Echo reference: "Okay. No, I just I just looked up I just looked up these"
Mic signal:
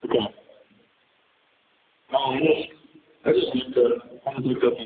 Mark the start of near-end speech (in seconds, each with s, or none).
none